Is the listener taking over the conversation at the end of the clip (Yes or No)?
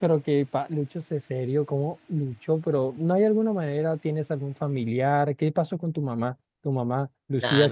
Yes